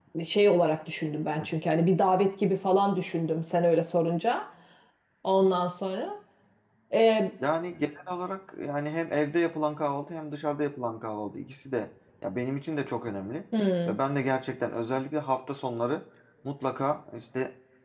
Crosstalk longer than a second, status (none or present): none